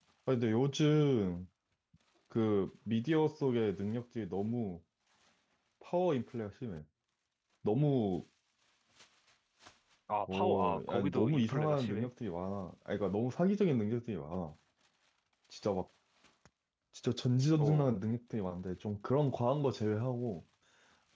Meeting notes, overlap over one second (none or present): present